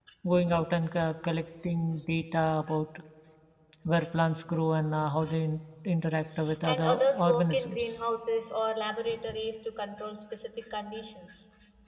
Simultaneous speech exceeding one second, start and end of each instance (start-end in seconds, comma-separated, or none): 6.6-8.0